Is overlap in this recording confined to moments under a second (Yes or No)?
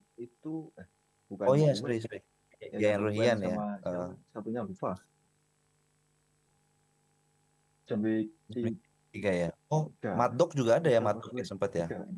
No